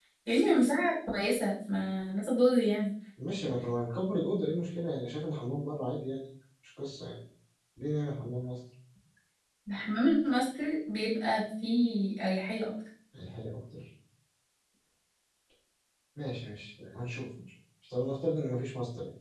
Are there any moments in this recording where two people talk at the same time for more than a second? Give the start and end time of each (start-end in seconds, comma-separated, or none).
none